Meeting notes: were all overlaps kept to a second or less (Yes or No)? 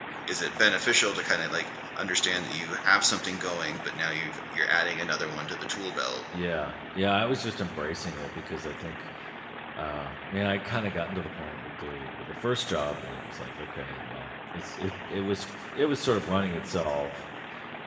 Yes